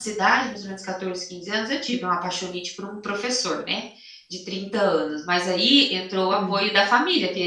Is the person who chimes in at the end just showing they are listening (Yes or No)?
Yes